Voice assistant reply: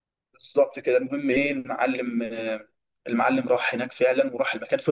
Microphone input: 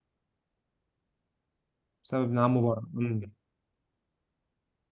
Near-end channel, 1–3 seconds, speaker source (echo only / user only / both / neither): user only